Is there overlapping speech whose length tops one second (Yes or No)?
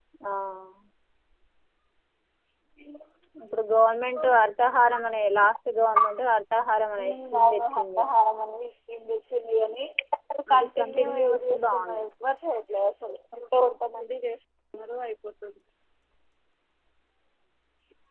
Yes